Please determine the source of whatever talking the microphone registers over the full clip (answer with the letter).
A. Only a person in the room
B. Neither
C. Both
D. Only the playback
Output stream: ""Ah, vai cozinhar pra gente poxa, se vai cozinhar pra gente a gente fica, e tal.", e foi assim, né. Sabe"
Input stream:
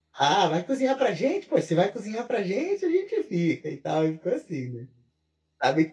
D